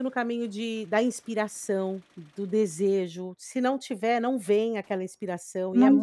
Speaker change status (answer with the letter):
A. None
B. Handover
A